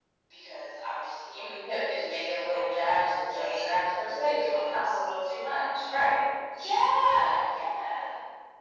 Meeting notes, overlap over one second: present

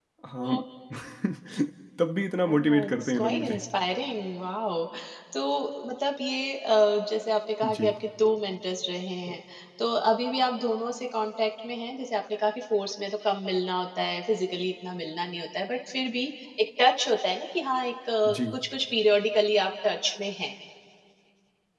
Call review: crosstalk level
present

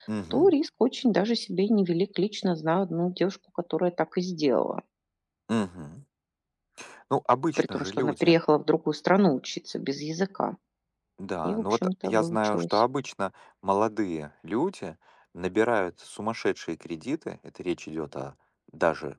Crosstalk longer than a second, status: present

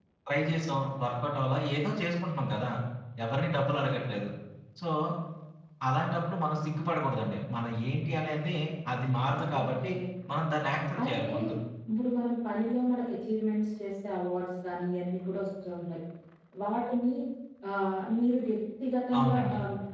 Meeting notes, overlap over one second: none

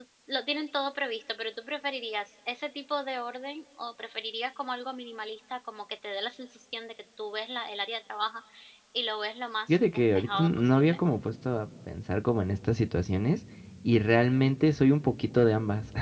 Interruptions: present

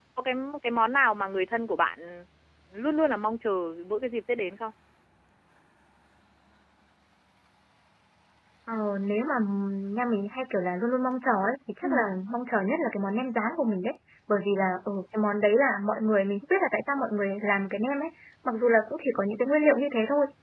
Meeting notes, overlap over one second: none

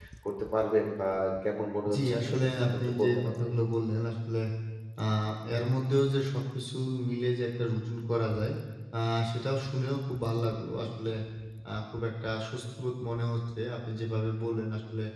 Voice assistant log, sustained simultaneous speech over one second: present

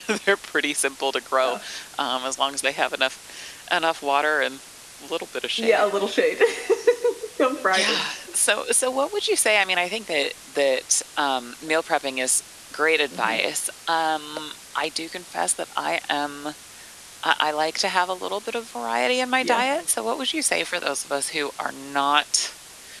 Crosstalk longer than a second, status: none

